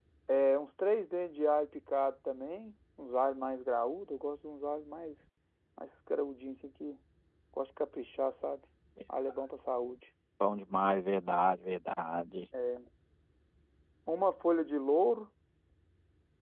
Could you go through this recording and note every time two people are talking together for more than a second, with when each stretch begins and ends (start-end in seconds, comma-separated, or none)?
none